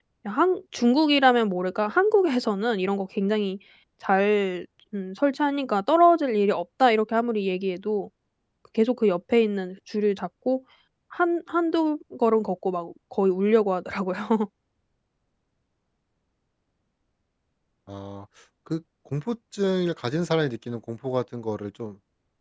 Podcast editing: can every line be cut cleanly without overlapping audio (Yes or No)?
Yes